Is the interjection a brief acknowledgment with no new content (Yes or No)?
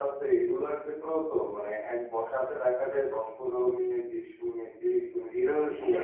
No